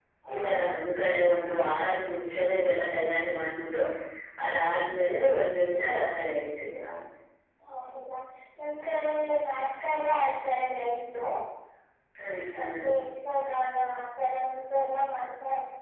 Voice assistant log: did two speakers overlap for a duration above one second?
No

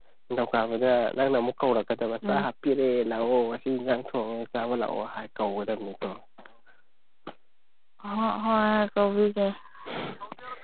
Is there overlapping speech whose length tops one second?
No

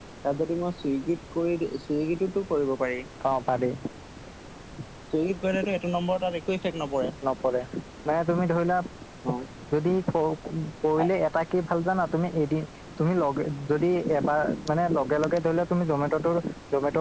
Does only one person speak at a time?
Yes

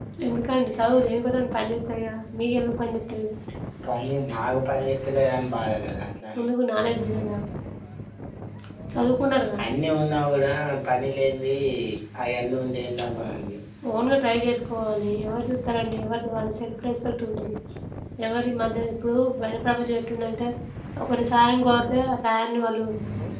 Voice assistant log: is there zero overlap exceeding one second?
Yes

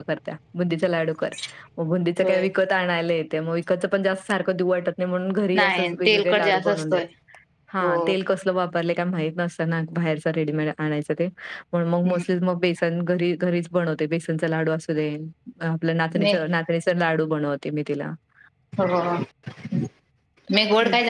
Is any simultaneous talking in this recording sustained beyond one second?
Yes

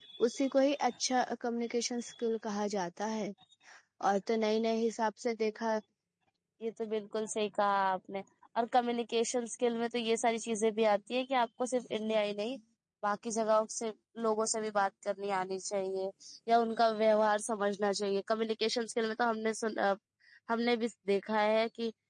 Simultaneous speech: No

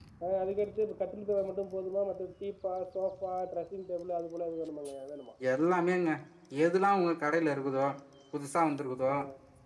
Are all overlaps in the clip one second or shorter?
Yes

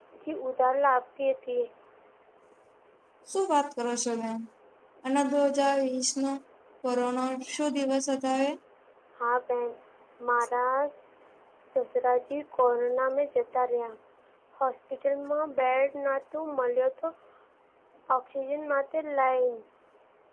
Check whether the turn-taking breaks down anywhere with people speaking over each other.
No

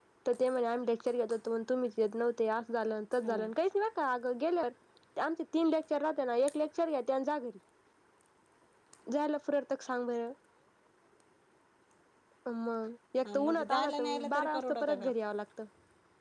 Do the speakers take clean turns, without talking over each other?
No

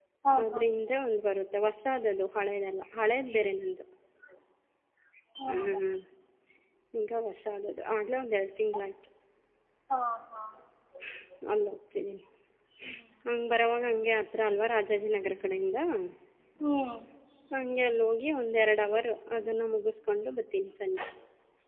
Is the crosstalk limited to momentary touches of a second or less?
Yes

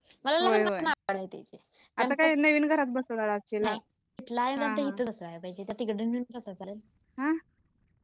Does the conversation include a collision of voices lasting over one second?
No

